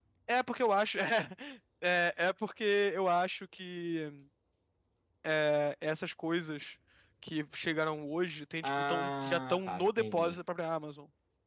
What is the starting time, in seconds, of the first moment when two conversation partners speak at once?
8.6 s

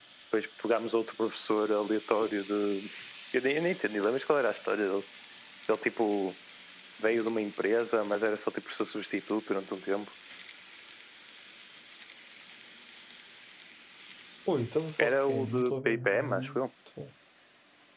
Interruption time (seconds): 15.0 s

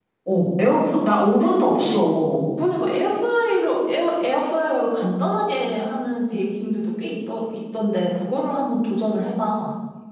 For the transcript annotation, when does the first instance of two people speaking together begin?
none

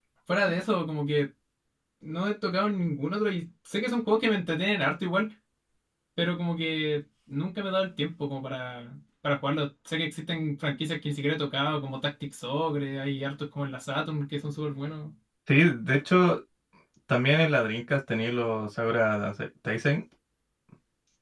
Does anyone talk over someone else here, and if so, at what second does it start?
none

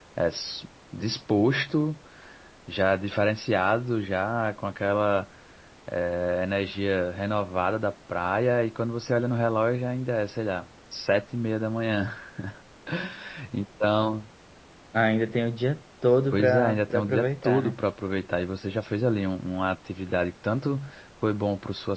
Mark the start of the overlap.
16.3 s

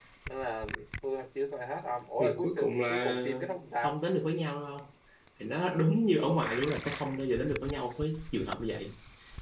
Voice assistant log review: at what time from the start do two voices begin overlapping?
2.2 s

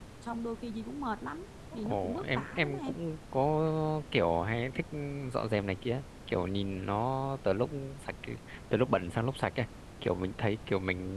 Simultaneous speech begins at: 1.7 s

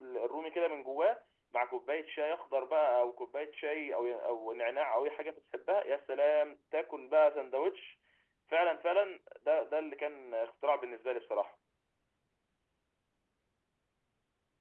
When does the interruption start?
none

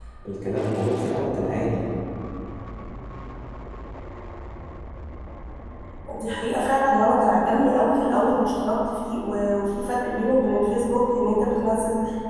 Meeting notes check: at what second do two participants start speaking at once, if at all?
none

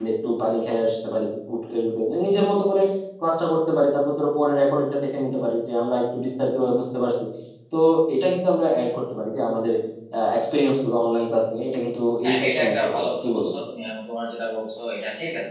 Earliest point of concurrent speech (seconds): 12.2 s

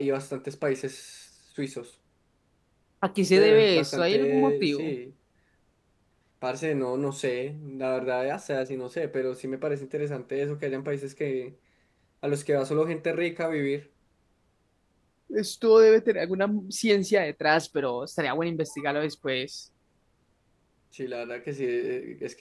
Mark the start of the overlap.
3.4 s

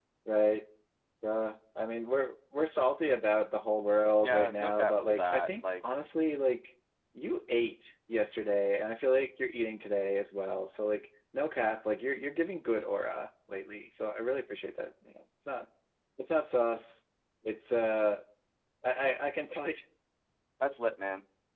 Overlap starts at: 4.2 s

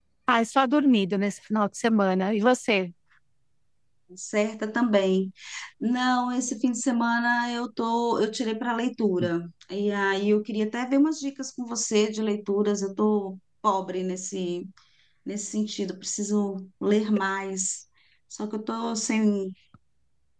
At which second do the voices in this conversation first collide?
none

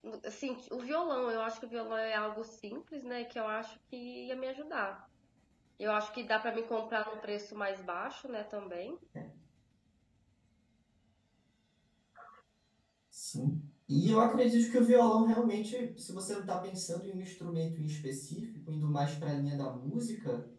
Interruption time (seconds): none

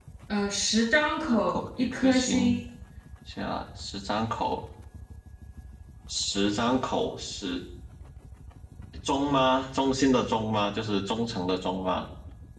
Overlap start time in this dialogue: 1.3 s

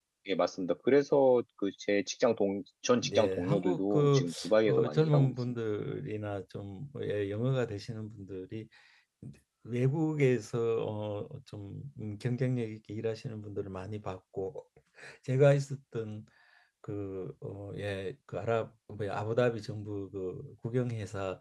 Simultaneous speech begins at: 3.0 s

